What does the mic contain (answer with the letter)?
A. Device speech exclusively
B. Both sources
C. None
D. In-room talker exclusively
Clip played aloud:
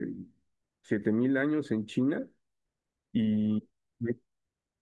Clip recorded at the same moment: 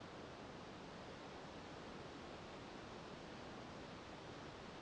C